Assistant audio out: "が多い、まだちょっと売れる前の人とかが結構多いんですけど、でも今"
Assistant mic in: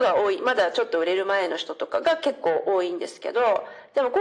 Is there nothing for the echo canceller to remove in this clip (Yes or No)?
No